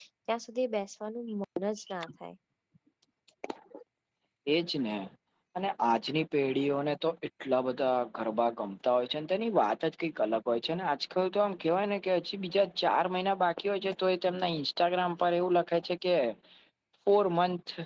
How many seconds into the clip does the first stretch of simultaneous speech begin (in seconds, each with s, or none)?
none